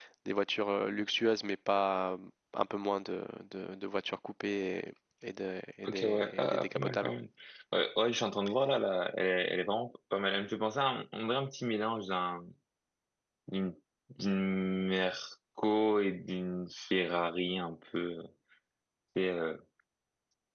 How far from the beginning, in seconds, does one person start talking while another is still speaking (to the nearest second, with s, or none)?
6 s